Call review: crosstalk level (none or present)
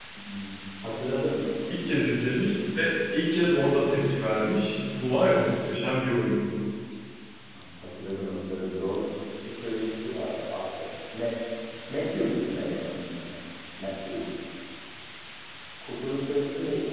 none